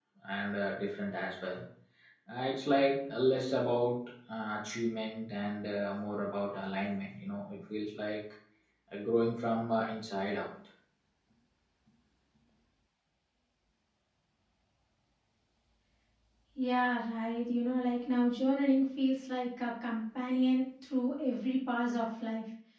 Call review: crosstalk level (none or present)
none